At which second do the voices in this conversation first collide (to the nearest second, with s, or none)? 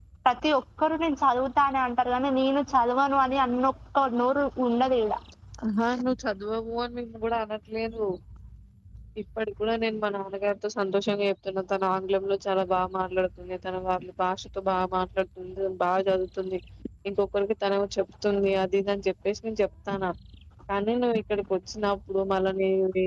none